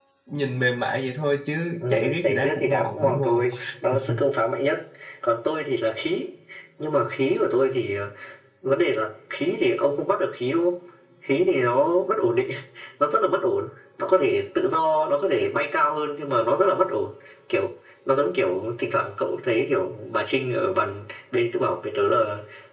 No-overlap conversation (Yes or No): No